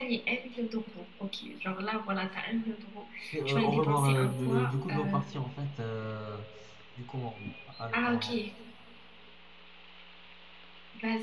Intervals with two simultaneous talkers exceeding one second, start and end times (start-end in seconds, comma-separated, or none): 3.5-5.2